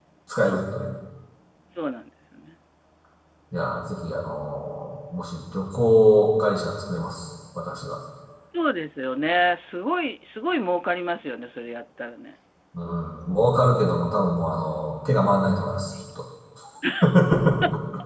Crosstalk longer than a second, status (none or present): none